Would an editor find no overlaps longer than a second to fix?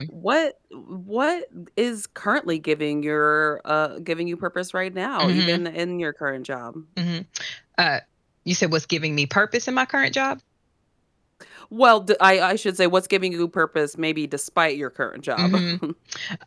Yes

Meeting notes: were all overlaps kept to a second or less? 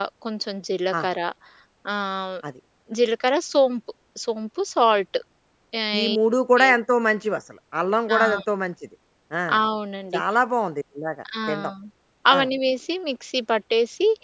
Yes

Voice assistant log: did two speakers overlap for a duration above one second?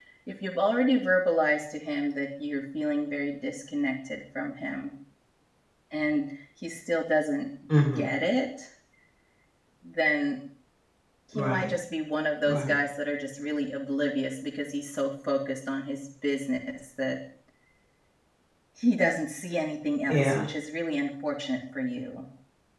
No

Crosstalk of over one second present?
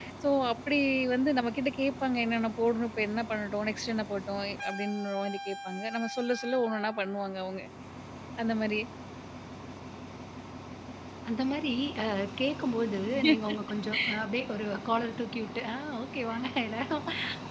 No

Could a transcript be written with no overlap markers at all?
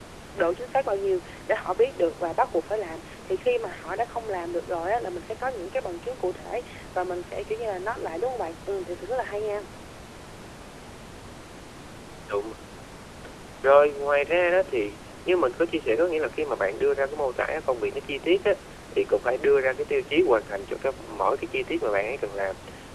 Yes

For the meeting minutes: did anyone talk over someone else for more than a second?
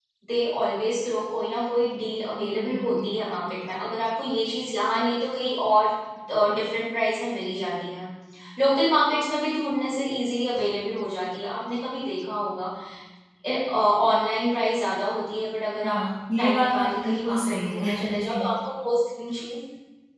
Yes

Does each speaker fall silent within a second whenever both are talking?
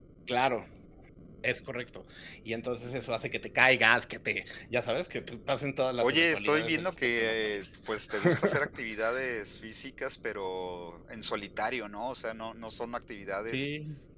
No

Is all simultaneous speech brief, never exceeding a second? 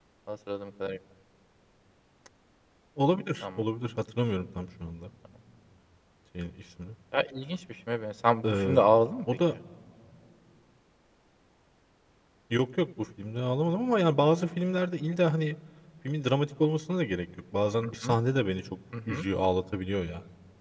Yes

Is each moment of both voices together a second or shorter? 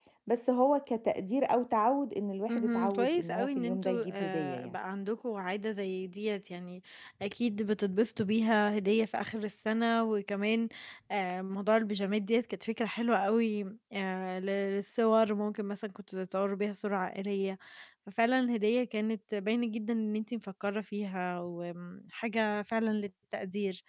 No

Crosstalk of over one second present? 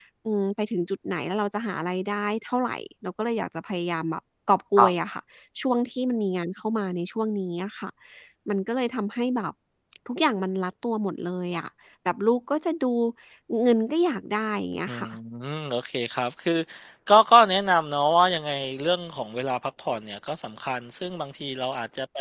No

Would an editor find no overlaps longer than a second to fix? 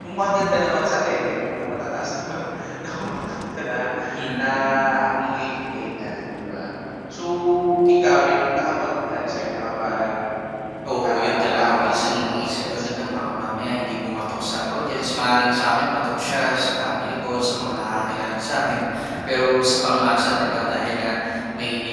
No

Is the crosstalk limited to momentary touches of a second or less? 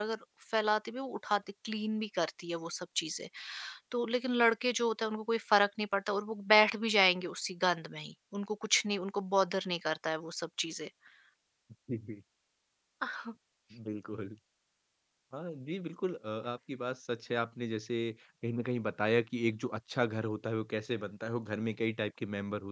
Yes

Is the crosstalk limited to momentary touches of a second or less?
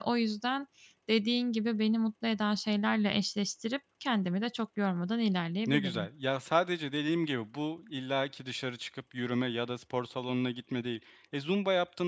Yes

